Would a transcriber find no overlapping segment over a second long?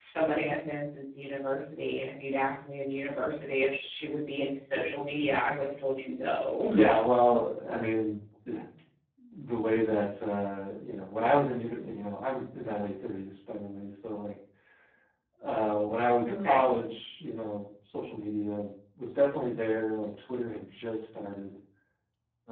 Yes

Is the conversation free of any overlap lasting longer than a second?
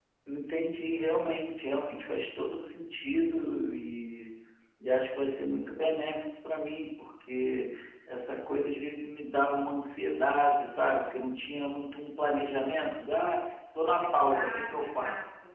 No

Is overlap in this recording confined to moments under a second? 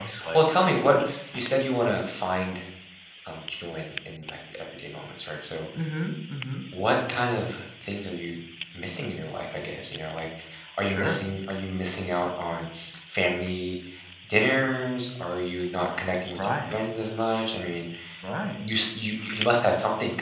Yes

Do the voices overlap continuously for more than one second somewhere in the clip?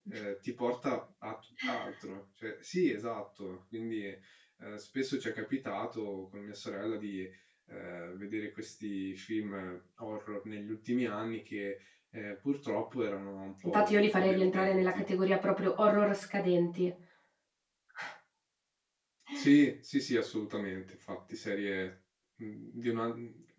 Yes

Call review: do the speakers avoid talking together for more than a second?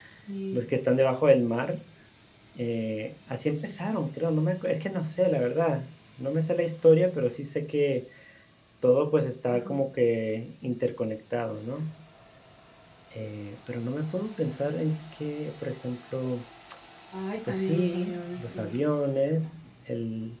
No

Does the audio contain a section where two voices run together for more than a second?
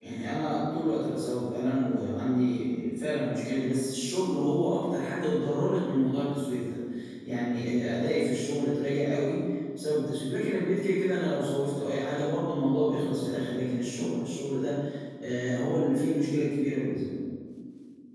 No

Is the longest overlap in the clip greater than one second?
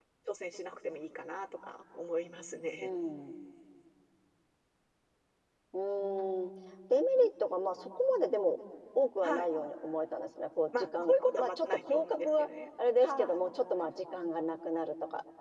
Yes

